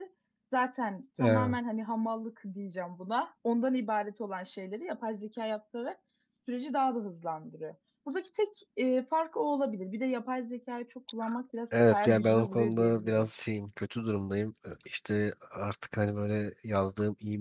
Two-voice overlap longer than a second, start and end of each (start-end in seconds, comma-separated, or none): 11.7-13.3